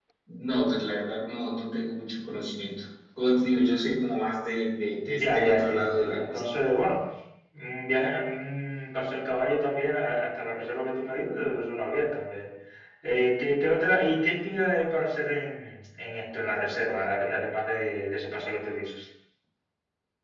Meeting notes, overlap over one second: present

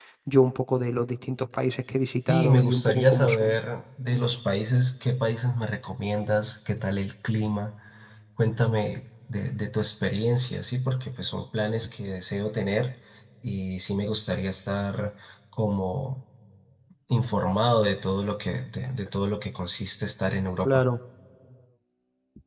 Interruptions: present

